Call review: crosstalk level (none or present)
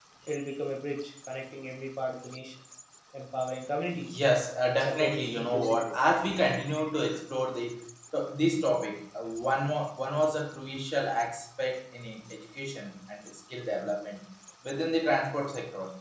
present